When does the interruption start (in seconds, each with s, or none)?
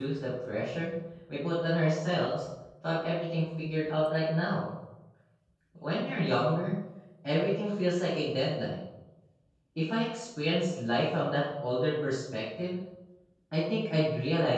none